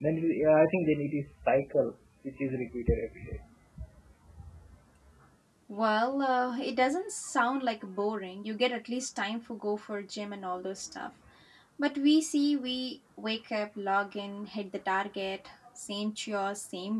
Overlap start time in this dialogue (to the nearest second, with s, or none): none